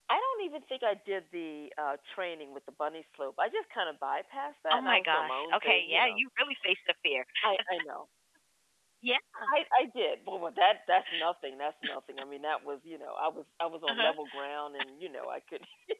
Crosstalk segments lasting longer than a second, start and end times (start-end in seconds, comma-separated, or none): 4.7-6.2